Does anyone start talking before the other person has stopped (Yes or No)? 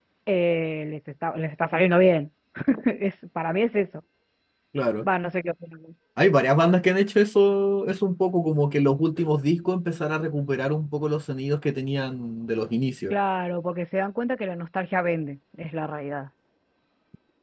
No